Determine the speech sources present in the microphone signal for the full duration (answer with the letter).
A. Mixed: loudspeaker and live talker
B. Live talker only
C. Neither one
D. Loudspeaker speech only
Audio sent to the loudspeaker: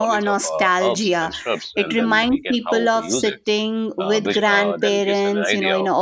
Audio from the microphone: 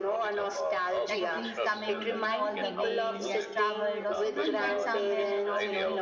A